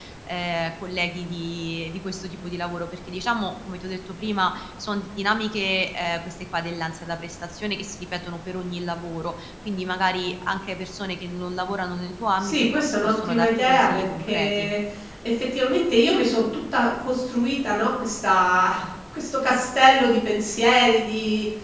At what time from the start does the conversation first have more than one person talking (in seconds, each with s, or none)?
12.4 s